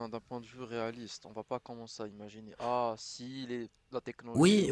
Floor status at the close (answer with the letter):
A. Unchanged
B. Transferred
B